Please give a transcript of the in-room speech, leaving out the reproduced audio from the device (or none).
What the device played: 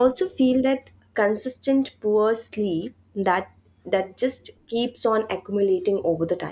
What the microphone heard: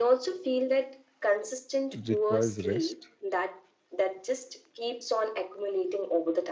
requires rest?